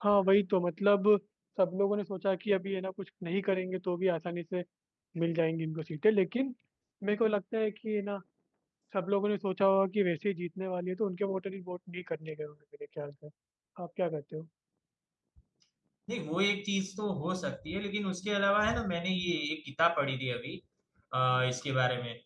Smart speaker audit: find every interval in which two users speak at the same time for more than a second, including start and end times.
none

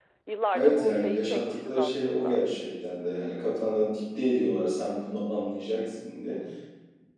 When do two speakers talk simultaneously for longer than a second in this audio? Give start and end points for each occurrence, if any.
0.5-2.4

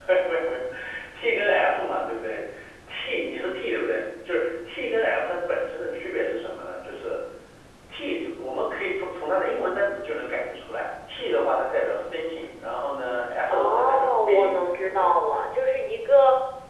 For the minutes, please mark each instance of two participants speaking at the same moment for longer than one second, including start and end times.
13.5-15.1

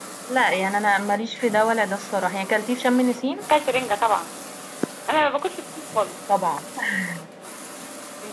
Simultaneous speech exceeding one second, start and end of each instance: none

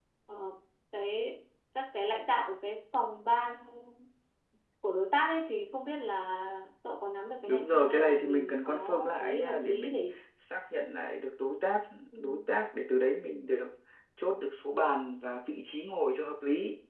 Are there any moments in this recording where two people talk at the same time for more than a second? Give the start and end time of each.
7.5-10.0

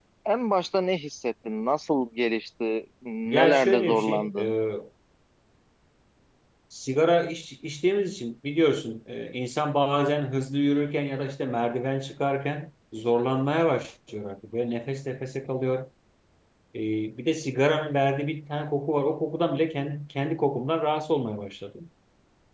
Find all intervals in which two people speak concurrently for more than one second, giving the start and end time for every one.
3.2-4.5

